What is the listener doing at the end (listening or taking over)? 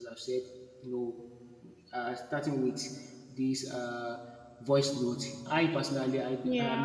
listening